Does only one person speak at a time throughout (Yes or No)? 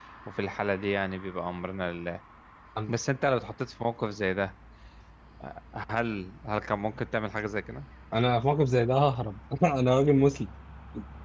Yes